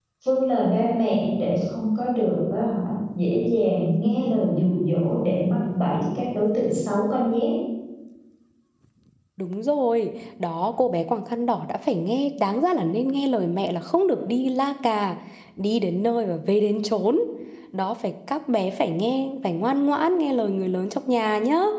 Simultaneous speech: No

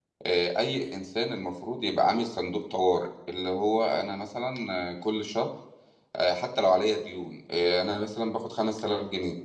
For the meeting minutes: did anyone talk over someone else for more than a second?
No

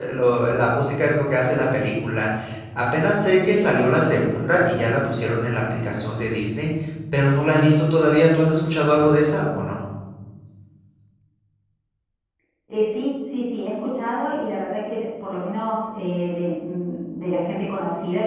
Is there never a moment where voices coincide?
Yes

